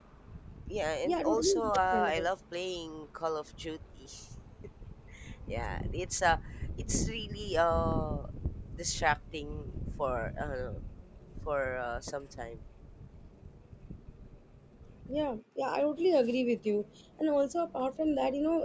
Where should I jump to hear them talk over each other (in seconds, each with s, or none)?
1.1 s